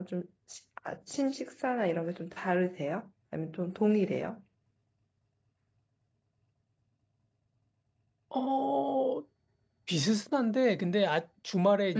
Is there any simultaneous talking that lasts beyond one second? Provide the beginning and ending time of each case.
none

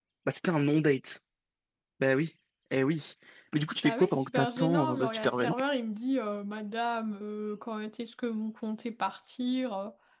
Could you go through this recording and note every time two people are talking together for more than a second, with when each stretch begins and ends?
3.8-5.6

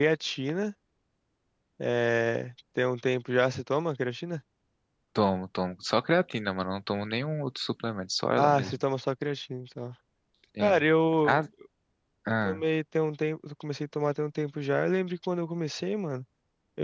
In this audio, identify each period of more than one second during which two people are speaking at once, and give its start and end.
none

